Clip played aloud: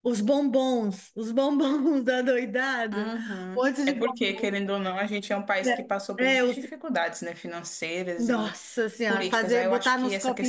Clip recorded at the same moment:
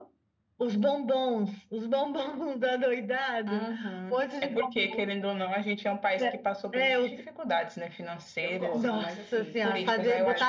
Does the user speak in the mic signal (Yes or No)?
Yes